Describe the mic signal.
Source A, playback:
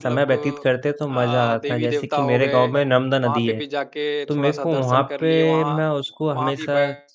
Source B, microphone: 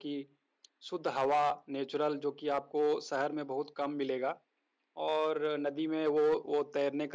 user only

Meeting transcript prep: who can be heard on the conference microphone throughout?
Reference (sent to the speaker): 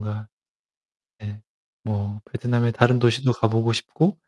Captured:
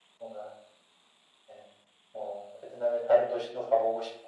echo only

